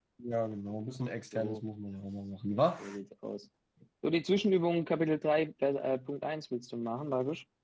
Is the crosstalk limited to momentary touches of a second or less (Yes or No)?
Yes